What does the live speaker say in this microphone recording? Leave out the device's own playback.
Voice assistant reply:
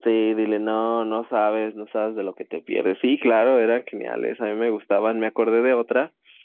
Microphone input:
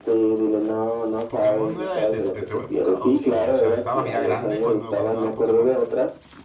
¿Pokémon no era de, de- de tu época o sí? O sea, ¿estabas ya grande cuando, cuando daba Pokémon?

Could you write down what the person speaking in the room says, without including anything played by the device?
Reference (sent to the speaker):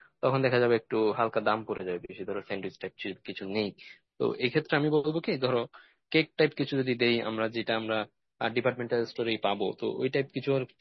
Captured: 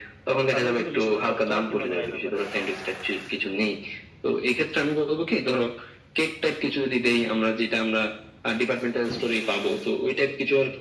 তাদেরও কিন্তু লিস্ট করতে হবে তোমার কি মনে হয় এ ব্যাপারে

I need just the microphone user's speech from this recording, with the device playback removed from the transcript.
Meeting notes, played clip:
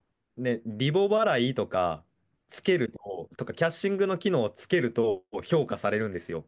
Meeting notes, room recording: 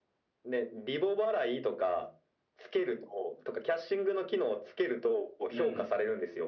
うん。

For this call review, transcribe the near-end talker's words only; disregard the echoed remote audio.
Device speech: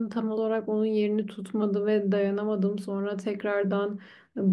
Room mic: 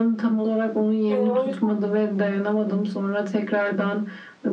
E, o yüzden...

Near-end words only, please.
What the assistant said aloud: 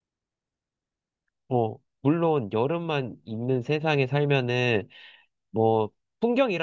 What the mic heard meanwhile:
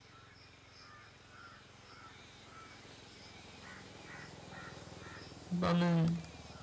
나는,

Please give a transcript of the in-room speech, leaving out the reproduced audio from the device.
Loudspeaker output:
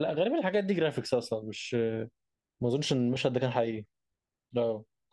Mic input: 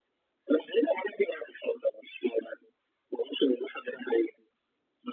none

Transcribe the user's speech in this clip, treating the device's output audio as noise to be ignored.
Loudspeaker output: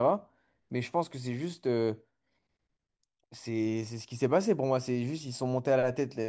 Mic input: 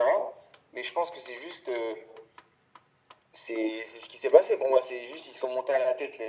none

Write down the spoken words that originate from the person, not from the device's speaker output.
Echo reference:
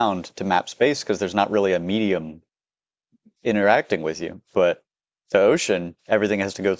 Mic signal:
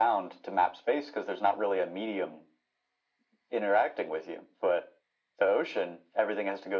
none

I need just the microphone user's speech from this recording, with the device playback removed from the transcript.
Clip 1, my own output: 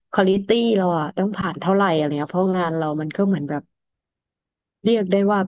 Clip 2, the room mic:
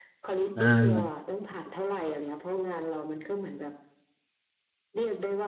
อ่า

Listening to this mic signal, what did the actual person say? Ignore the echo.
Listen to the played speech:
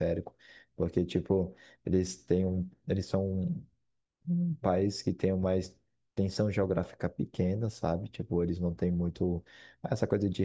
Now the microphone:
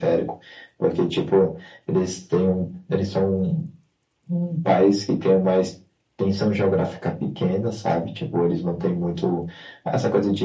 none

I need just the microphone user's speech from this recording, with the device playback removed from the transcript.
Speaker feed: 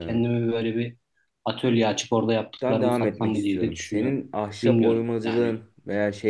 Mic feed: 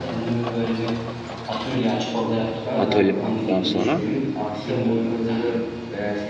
atölyeden sonra.

